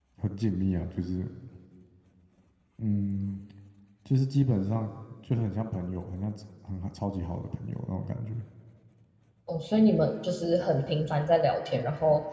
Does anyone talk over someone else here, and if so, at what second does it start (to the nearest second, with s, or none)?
none